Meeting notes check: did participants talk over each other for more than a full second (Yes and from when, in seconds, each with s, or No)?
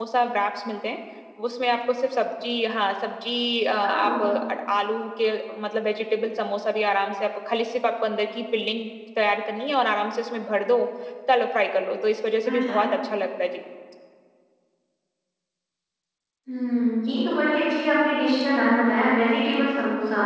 No